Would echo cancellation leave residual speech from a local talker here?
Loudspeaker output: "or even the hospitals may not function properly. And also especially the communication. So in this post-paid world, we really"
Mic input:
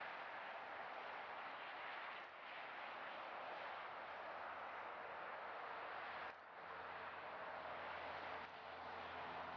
No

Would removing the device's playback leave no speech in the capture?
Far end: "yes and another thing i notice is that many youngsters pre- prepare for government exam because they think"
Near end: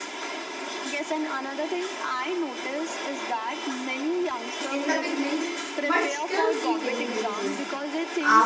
No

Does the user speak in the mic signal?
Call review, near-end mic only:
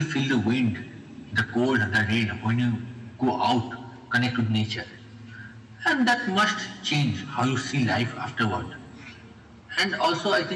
No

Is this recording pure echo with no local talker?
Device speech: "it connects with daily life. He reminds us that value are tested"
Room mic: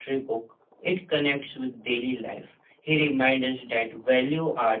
Yes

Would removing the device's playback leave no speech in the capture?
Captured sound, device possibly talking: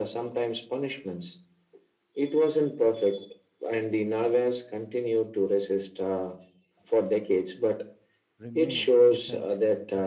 No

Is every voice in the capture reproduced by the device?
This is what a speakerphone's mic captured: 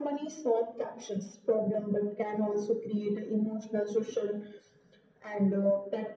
Yes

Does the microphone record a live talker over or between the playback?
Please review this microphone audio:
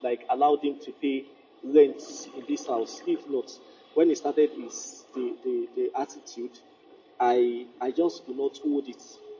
No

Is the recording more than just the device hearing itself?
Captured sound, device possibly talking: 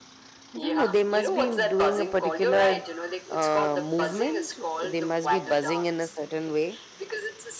Yes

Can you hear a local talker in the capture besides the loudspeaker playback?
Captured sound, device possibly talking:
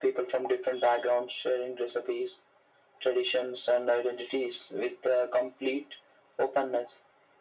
No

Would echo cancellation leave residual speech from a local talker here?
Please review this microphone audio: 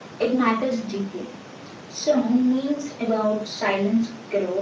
No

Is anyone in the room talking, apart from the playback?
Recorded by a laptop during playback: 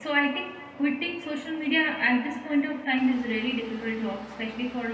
Yes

